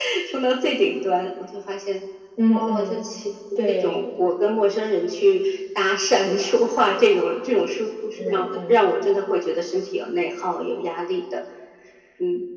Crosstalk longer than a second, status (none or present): none